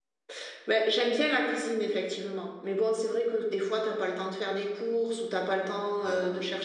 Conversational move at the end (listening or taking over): listening